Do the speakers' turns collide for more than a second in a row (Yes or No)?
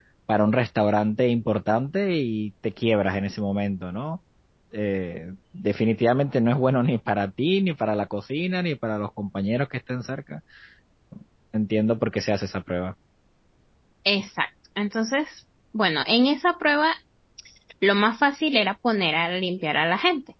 No